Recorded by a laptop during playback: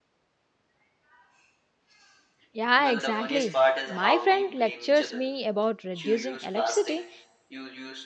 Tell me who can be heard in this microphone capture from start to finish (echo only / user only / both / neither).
both